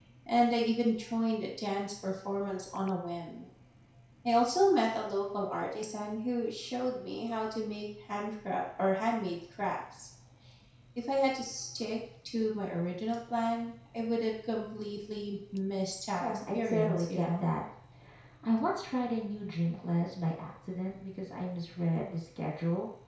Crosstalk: present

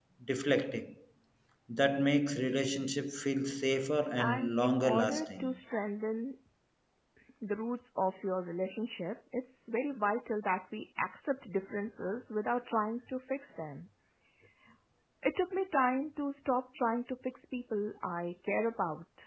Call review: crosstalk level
present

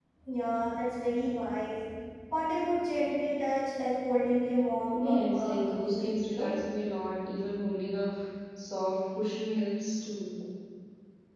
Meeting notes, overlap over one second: present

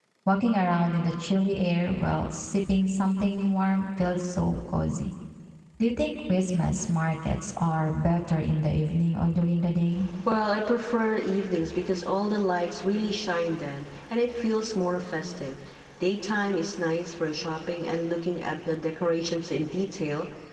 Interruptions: none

